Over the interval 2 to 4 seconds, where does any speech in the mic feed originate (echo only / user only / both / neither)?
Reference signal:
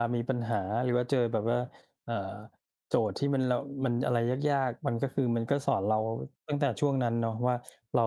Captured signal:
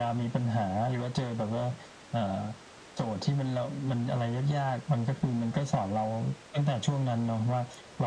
echo only